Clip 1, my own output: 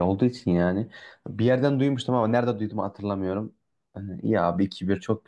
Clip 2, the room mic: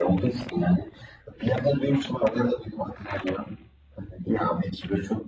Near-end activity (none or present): none